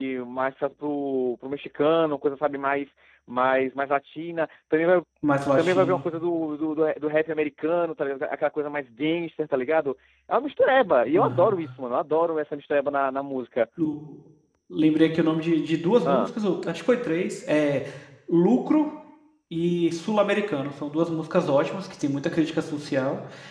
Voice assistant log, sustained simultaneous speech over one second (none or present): none